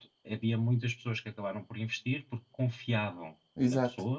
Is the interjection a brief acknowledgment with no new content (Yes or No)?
Yes